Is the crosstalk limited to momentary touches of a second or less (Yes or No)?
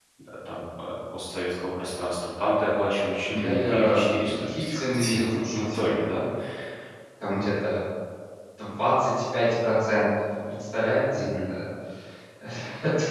No